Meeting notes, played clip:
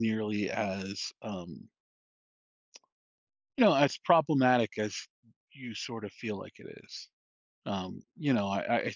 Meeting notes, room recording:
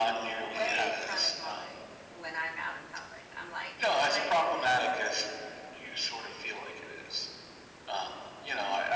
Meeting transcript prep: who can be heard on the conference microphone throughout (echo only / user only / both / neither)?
both